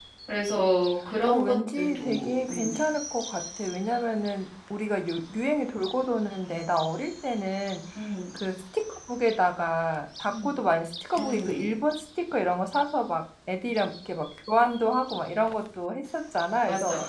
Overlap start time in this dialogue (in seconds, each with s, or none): 1.3 s